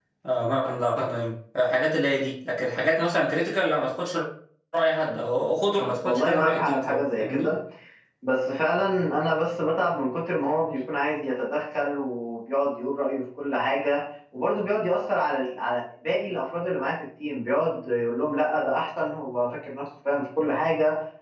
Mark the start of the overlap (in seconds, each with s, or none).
6.0 s